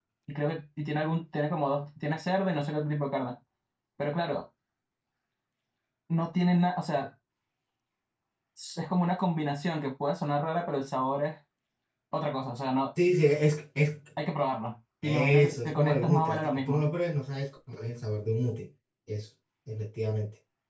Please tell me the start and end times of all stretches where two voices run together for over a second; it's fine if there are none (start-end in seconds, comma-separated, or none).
15.0-16.8